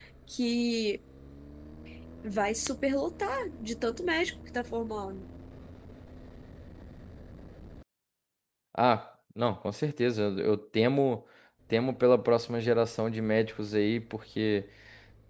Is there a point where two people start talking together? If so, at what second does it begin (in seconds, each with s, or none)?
none